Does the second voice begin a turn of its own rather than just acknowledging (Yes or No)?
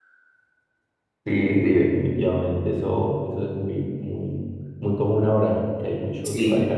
No